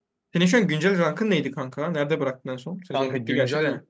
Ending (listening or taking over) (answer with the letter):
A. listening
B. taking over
B